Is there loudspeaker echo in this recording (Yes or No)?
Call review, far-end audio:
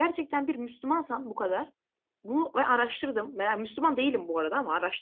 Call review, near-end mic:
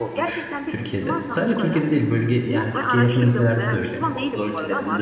Yes